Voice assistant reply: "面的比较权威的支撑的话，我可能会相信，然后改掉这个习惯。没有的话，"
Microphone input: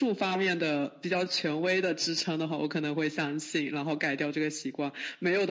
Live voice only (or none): none